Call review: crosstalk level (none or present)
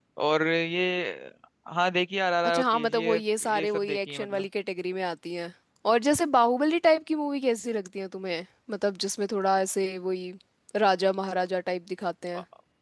present